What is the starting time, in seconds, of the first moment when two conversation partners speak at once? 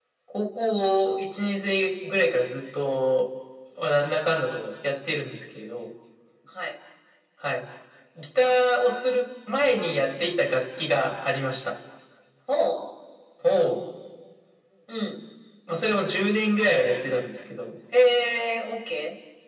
none

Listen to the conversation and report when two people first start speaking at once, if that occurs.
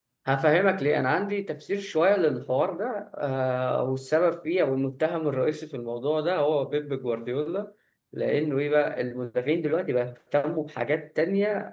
none

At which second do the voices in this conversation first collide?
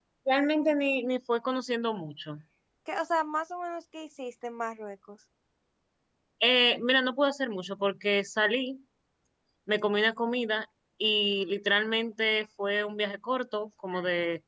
none

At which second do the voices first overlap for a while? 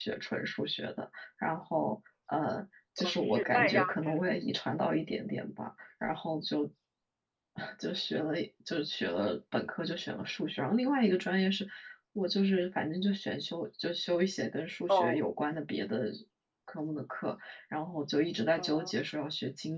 3.0 s

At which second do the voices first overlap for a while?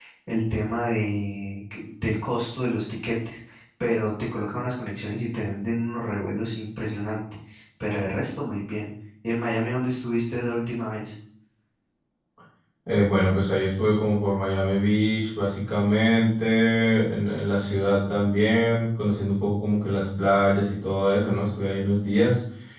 none

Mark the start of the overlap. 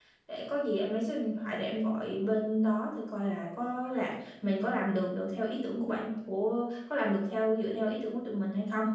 none

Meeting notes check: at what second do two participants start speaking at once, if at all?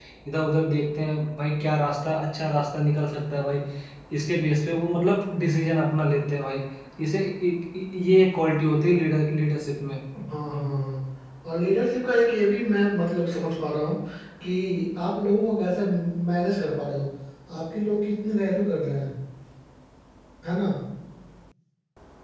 none

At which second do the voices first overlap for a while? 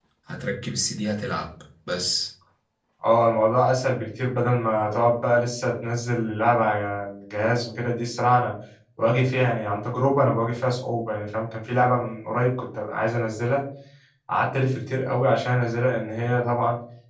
none

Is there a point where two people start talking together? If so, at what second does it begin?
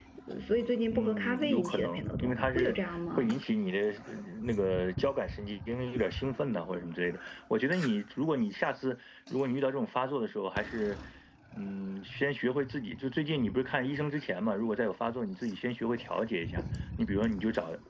0.9 s

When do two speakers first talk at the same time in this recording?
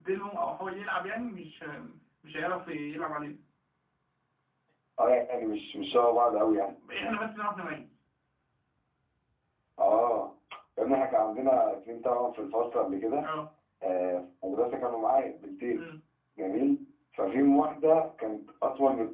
none

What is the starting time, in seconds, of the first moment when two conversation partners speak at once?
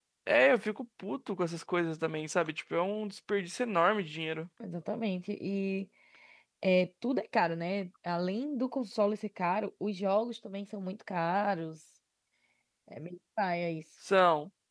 none

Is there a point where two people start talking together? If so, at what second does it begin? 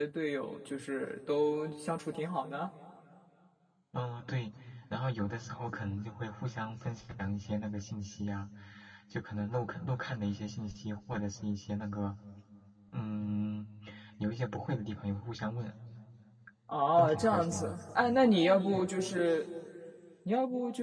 17.0 s

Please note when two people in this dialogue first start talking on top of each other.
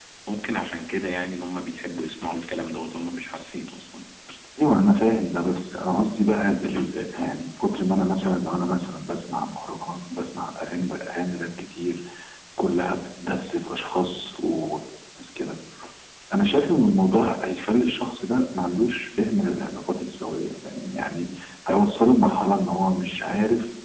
none

